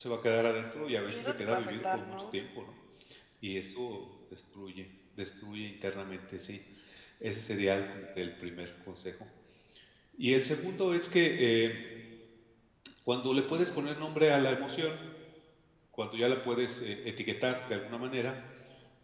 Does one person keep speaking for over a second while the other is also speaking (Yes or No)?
Yes